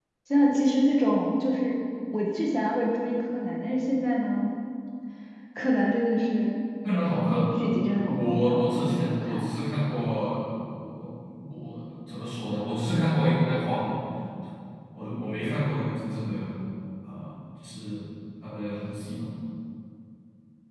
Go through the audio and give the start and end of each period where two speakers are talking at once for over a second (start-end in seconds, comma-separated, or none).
8.1-9.5